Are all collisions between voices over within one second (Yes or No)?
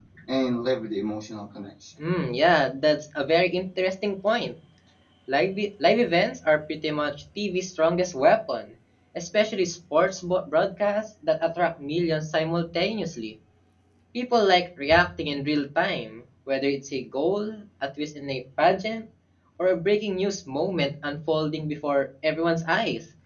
Yes